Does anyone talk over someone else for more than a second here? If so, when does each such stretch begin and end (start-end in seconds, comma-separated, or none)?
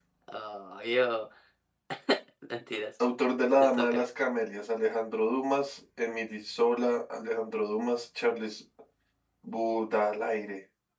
none